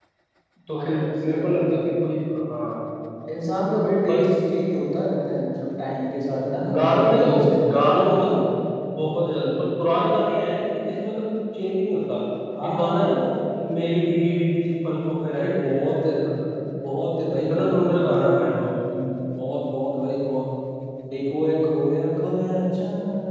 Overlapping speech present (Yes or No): Yes